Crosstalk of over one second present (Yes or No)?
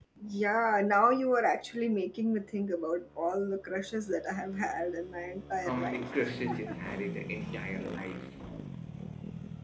No